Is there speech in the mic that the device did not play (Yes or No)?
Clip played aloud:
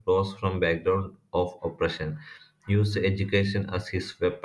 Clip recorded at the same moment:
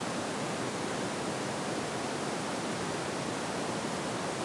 No